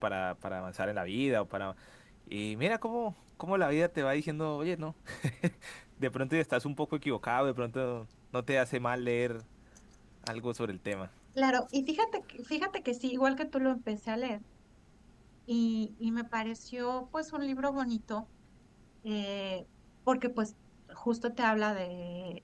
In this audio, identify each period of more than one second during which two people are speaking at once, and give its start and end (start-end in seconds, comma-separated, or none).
none